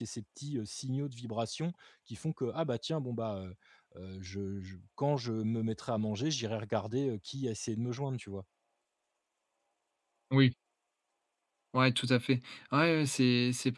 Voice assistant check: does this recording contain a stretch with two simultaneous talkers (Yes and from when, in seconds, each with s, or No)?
No